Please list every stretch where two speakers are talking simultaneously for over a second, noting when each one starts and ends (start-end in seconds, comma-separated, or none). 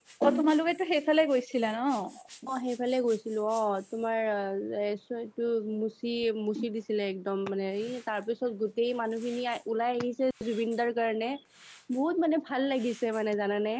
none